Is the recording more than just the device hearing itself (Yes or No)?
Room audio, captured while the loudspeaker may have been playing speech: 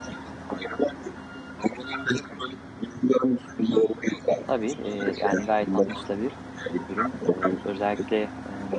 Yes